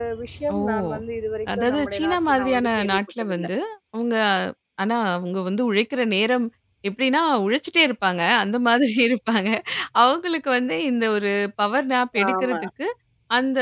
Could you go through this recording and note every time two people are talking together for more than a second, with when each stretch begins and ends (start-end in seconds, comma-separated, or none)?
1.6-3.5